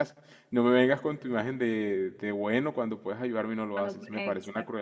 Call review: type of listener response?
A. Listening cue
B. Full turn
B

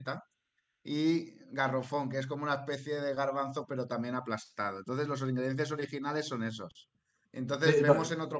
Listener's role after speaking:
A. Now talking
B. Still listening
B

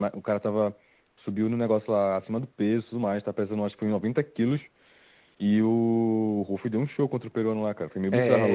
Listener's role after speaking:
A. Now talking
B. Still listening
A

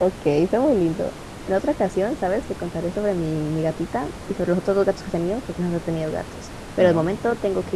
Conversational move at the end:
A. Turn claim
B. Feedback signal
B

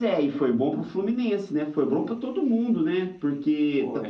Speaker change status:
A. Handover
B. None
B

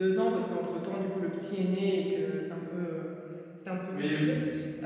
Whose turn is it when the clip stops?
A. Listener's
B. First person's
B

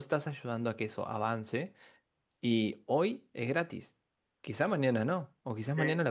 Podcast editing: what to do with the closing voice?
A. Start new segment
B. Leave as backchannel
B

